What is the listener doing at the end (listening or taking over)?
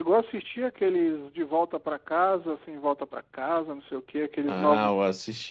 taking over